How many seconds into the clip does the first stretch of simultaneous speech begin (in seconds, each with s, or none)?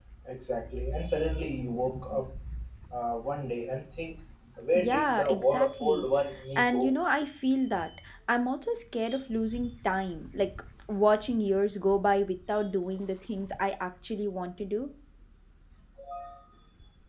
4.8 s